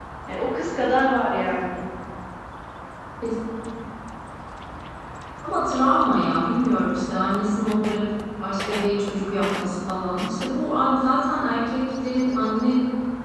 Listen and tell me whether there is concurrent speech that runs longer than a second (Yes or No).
No